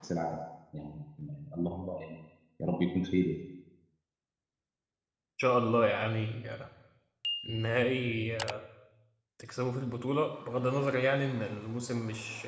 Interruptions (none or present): none